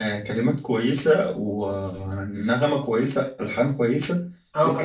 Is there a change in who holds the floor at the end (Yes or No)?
Yes